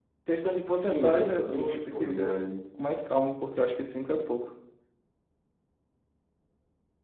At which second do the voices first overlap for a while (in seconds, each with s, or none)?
0.7 s